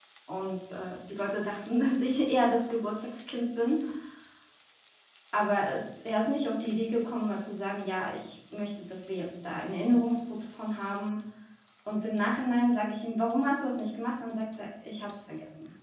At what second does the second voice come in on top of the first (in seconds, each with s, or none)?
none